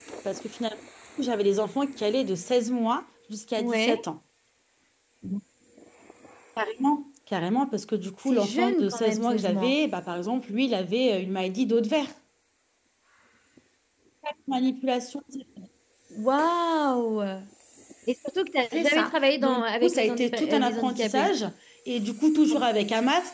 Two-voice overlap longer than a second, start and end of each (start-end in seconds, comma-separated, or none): 8.3-9.8, 18.7-21.3